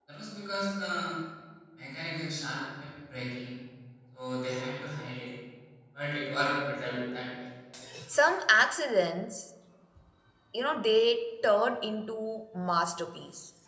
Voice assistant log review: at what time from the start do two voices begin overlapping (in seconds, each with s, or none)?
none